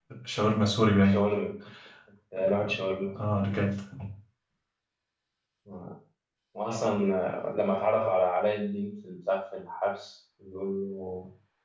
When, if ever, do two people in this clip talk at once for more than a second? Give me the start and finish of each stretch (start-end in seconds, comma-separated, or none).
none